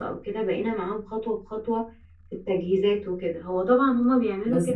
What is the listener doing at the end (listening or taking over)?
listening